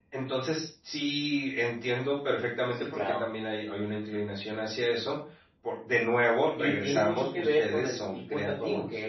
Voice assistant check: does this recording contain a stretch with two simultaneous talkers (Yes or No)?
Yes